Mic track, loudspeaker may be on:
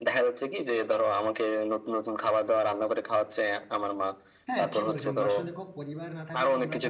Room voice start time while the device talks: 4.5 s

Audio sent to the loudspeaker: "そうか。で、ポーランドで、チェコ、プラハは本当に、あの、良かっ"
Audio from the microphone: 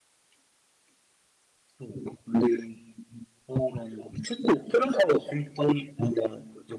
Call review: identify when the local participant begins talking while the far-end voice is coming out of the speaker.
none

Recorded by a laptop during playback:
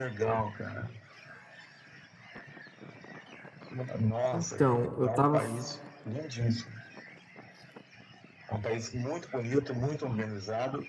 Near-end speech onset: 4.3 s

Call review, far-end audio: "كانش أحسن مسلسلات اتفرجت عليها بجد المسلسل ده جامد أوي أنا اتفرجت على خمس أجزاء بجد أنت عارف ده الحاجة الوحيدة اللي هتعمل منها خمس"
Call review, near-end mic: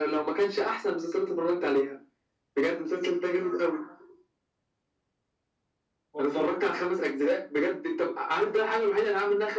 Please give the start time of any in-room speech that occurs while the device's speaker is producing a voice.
6.1 s

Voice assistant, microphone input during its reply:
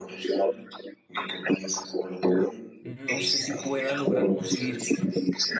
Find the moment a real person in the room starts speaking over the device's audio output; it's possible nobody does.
2.8 s

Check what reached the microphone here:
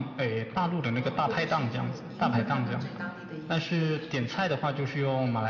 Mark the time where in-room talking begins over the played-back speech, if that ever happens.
0.9 s

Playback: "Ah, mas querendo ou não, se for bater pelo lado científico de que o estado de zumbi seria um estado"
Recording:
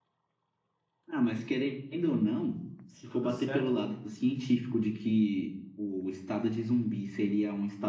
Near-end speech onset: 3.1 s

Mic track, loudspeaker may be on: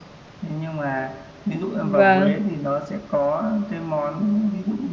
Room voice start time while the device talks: 1.8 s

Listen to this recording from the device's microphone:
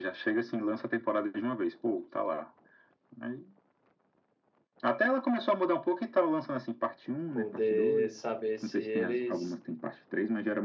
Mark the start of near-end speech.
7.3 s

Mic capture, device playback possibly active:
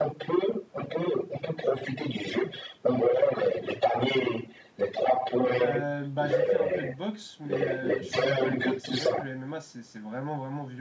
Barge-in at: 5.6 s

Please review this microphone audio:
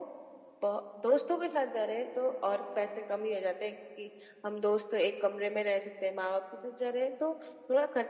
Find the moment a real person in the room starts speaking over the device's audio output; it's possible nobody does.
none

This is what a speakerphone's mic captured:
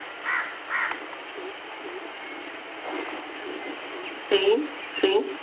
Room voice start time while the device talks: 4.3 s

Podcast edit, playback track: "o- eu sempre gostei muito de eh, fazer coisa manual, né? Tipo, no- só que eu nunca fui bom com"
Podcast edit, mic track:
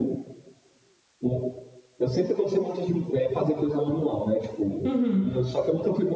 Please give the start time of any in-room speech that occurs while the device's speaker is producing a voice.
4.8 s

